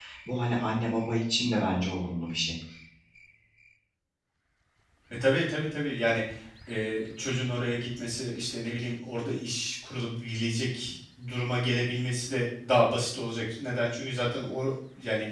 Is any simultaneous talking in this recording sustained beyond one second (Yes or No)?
No